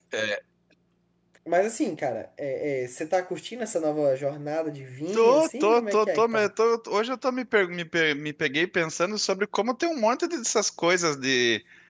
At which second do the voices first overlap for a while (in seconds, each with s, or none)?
5.1 s